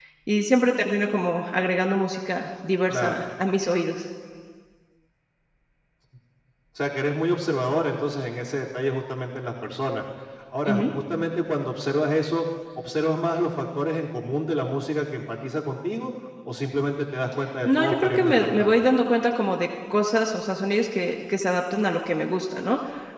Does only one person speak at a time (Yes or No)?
No